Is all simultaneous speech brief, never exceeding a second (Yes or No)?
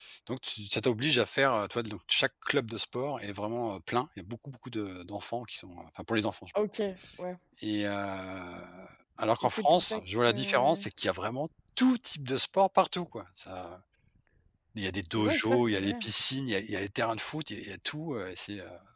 No